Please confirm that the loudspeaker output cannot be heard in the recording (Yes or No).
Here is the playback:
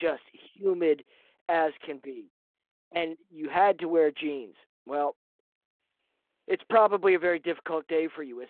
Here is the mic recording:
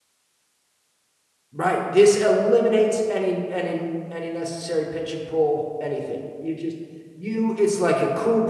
Yes